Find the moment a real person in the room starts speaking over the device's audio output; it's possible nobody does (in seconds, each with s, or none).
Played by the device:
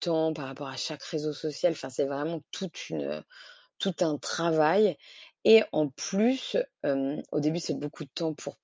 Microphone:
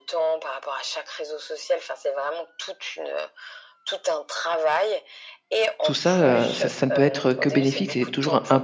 5.8 s